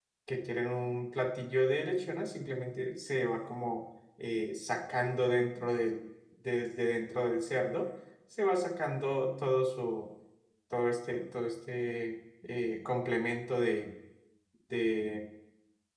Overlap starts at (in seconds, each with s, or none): none